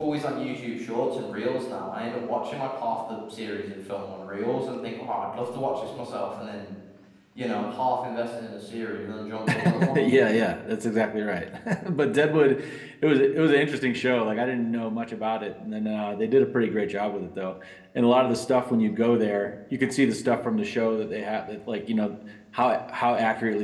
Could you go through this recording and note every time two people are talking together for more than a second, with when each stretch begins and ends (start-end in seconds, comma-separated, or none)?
none